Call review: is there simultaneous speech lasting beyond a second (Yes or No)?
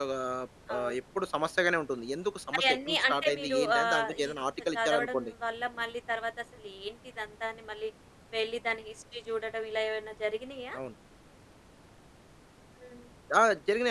Yes